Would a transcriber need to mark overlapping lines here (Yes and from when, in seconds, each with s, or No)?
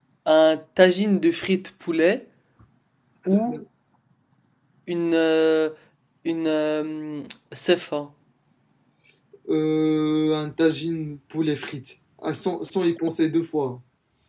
No